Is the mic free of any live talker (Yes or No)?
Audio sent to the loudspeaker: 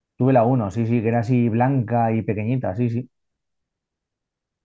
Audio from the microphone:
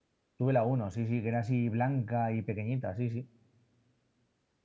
Yes